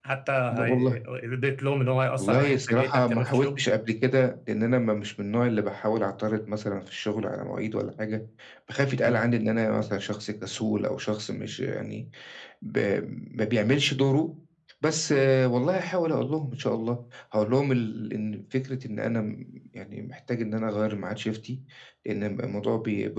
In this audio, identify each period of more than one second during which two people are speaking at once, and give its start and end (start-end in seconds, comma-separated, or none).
2.2-3.6